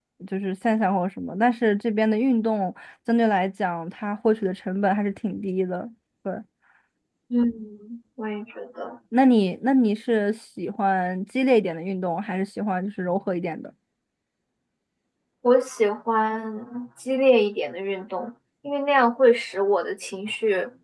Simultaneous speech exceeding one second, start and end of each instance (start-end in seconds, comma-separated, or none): none